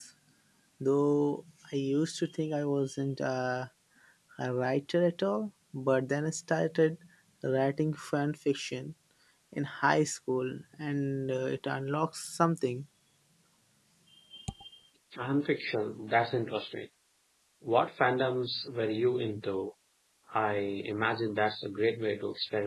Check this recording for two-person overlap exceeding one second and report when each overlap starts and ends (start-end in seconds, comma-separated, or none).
none